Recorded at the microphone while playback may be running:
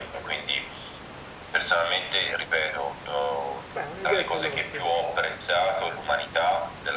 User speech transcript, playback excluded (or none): Beh, un'idea ce l'ho, sì,